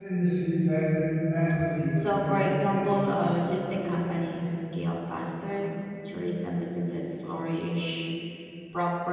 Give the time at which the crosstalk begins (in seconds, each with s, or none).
1.9 s